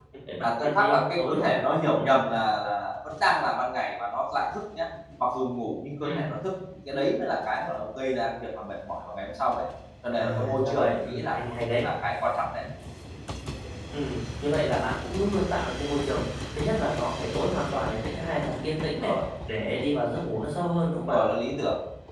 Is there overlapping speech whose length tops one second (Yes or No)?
Yes